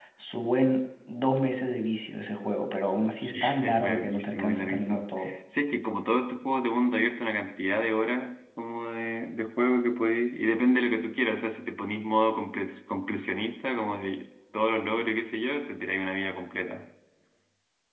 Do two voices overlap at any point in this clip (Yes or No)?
Yes